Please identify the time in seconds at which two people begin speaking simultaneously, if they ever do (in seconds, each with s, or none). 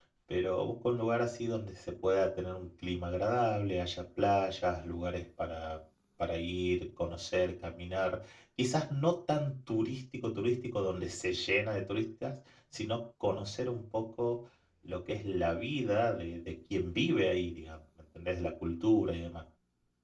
none